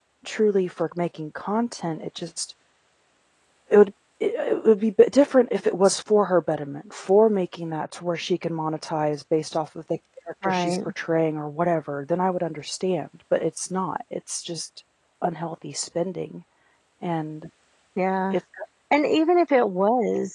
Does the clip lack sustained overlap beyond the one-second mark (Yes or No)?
Yes